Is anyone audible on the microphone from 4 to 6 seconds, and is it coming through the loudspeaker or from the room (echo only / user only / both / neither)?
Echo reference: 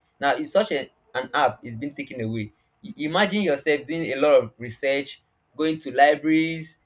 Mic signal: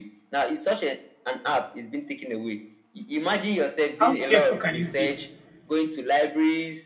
both